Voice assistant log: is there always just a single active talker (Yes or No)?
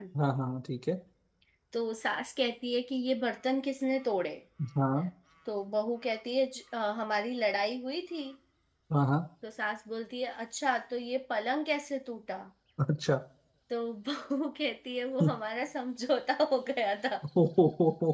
Yes